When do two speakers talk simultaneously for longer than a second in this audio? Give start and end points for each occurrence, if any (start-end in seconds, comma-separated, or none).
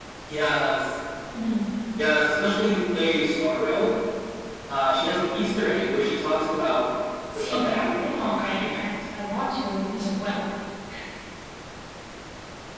7.3-8.8